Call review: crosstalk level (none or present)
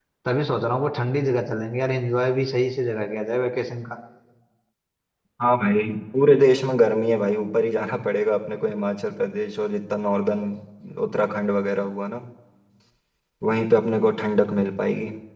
none